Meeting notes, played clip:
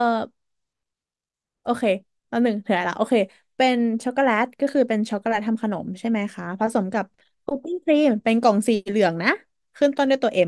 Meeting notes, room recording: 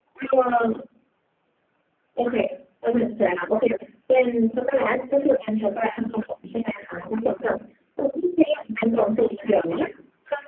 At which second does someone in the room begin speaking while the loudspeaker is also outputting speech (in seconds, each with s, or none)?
none